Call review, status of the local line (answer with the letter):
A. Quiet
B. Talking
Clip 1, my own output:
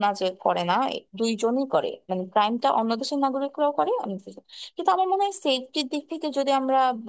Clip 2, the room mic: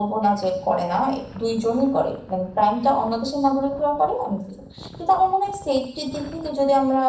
A